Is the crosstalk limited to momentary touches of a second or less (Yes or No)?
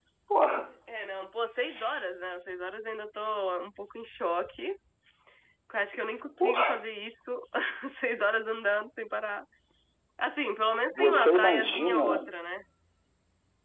No